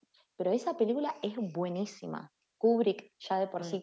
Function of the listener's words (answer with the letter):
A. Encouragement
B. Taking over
A